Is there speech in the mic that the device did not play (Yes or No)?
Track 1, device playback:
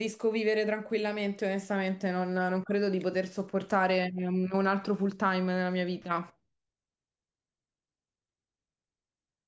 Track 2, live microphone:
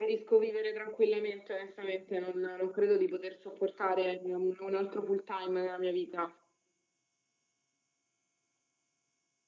No